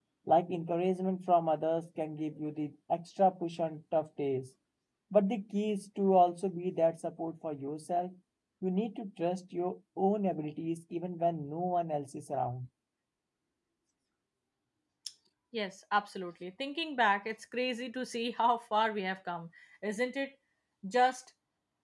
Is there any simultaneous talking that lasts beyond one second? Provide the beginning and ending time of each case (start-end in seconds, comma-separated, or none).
none